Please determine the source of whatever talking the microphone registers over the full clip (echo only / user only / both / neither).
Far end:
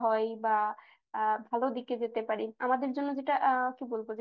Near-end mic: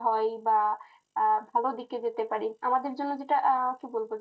echo only